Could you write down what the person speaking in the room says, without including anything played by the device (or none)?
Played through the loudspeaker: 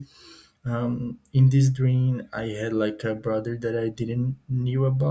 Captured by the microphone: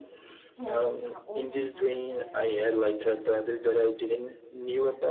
yes uh, almost every night i dream and